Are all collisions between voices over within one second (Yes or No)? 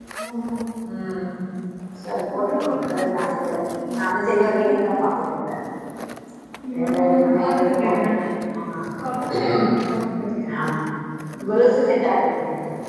No